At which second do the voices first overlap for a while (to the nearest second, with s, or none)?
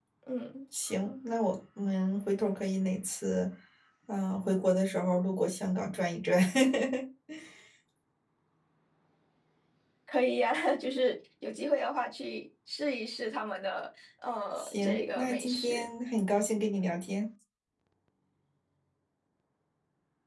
15 s